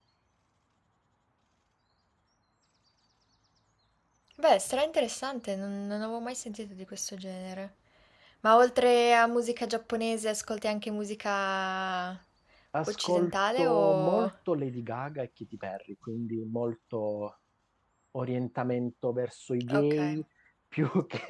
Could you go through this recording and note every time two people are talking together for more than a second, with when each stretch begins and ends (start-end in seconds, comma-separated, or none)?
12.9-14.3